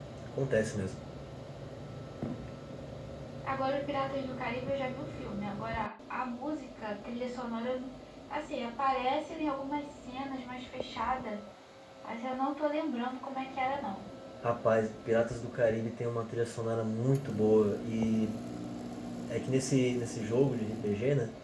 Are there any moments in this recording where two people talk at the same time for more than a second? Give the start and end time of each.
none

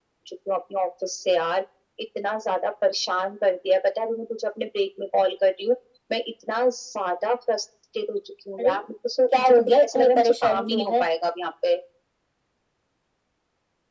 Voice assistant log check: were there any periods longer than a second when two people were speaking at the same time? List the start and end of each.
9.3-11.0

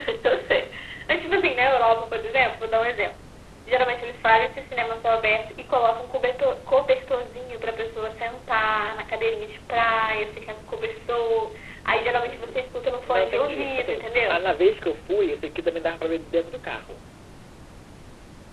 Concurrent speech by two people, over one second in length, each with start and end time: 13.1-14.4

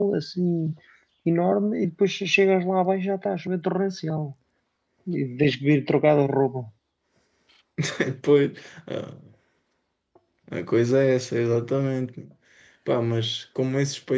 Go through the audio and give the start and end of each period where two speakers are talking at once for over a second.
none

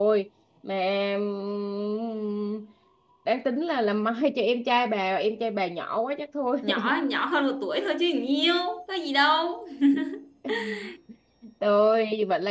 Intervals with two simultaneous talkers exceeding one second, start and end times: none

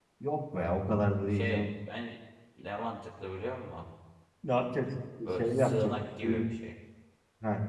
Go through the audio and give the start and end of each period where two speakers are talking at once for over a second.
5.2-6.5

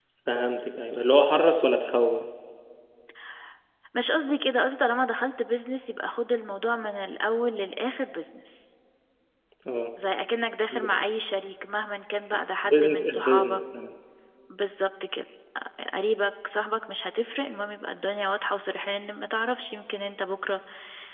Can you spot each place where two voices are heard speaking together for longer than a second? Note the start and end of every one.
12.3-13.6

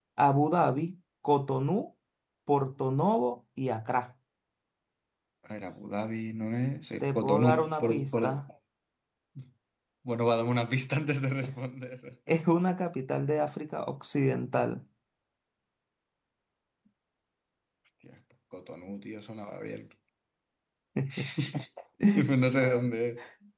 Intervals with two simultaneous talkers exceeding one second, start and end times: 7.0-8.4

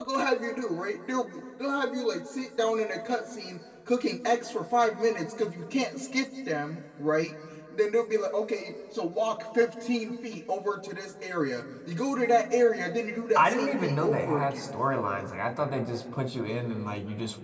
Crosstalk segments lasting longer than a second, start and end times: 13.3-14.8

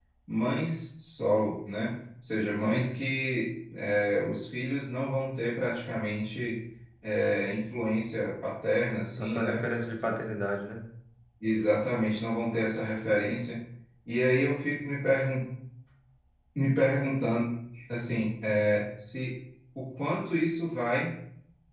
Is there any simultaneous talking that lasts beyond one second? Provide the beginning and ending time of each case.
none

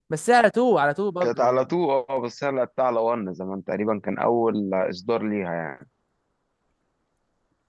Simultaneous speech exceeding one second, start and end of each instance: none

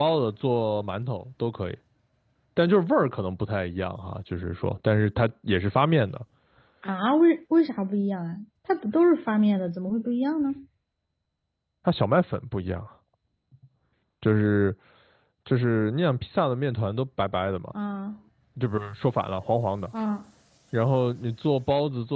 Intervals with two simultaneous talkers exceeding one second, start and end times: none

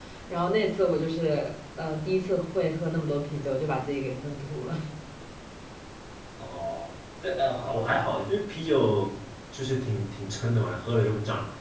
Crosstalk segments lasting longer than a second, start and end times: none

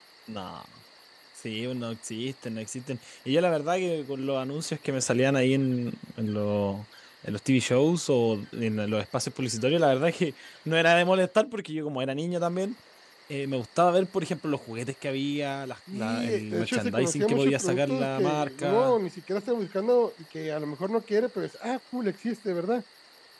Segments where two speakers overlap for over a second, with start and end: 15.9-19.0

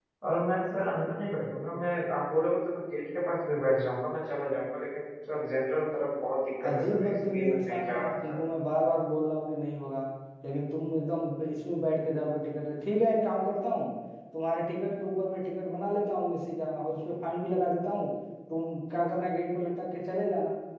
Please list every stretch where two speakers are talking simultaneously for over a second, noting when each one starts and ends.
6.6-8.3

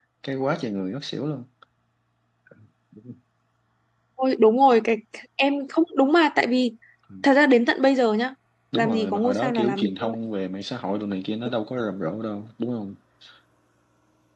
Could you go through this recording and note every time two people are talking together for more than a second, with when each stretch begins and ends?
8.7-10.2

